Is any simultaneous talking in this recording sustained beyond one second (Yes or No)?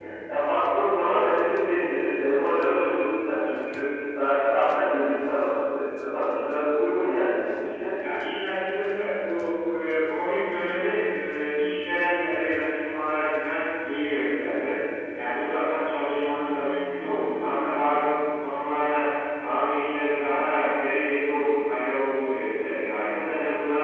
No